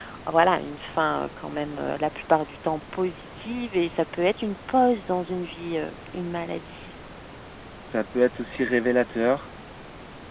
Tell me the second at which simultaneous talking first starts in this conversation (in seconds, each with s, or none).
none